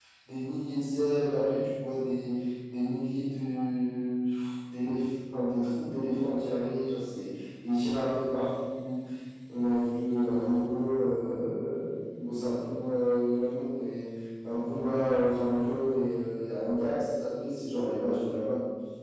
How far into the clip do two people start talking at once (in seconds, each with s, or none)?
none